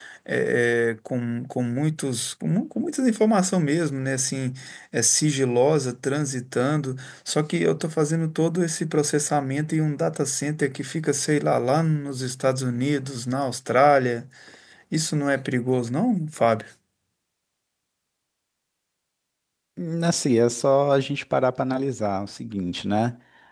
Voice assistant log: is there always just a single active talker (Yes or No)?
Yes